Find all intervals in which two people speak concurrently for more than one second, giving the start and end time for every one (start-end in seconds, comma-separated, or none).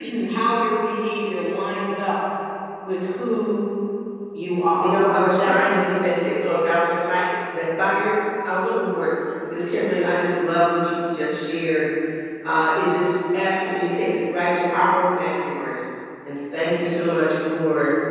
4.8-6.3